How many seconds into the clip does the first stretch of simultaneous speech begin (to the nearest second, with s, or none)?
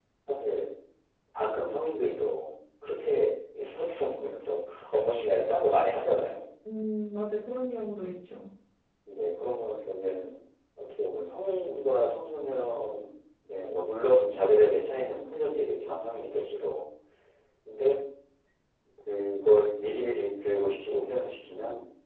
none